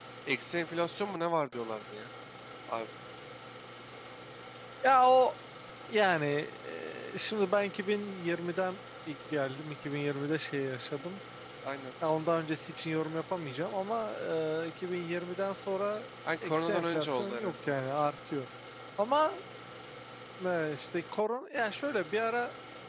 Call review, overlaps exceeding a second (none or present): present